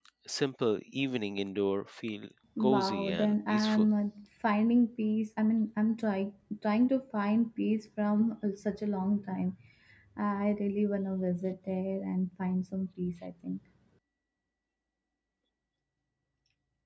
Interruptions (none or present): present